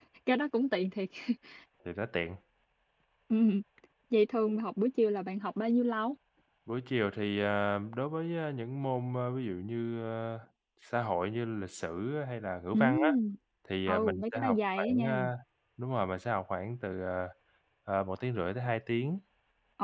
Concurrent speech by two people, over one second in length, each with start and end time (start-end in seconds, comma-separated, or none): 13.9-15.1